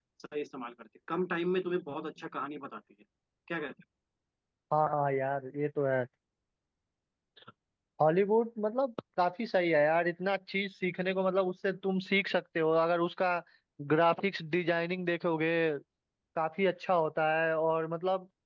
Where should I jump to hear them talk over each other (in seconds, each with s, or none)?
none